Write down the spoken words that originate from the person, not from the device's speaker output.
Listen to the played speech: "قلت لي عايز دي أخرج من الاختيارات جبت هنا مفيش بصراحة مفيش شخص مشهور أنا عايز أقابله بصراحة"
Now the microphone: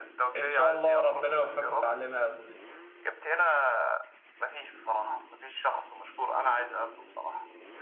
إن شاء الله ربنا يوفقك وتعلمها يا صديقي

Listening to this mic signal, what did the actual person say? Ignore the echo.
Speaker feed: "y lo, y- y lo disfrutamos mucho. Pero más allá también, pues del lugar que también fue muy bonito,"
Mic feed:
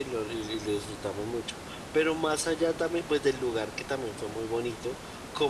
none

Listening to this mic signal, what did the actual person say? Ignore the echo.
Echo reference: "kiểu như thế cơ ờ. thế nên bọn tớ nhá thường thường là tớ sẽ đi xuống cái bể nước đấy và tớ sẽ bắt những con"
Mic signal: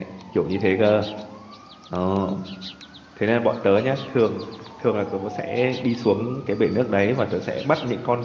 none

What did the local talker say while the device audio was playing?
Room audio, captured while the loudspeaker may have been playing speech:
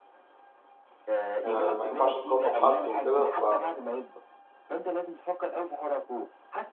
آه، ما ينفعش تقارنه بحد وكده ف

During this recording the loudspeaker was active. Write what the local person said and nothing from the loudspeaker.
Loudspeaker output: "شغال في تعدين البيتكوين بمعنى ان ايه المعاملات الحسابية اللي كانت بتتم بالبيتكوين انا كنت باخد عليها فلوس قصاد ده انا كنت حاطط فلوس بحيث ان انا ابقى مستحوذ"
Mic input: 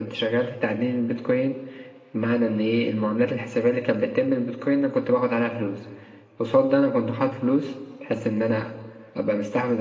none

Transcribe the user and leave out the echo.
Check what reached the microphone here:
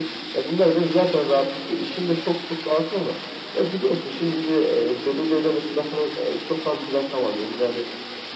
none

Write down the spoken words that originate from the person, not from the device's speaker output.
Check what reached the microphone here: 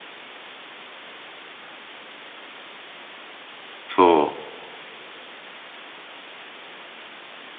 そ

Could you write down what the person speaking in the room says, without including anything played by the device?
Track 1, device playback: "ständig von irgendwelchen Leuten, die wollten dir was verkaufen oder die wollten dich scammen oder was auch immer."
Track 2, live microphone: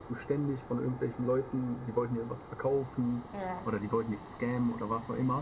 Ja.

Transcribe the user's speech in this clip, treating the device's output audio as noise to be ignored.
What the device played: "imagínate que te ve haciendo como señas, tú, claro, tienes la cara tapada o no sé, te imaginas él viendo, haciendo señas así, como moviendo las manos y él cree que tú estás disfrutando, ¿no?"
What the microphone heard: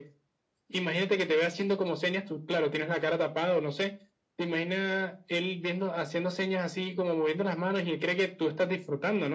none

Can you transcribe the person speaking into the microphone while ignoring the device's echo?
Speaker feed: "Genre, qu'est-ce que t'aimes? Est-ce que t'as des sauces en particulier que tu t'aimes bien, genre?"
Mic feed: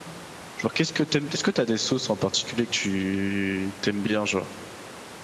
none

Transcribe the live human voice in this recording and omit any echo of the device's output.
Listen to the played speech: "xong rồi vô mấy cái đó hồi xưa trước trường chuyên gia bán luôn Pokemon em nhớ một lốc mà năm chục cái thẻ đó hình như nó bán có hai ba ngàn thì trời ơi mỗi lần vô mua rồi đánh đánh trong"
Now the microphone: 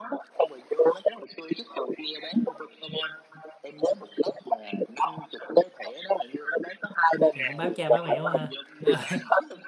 mày cũng báo cha báo mẹ quá ha Ờ.

